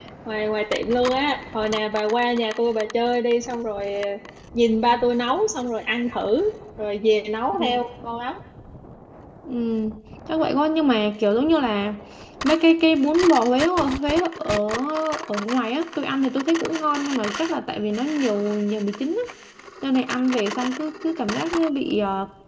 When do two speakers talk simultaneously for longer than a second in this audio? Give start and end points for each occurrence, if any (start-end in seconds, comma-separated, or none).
none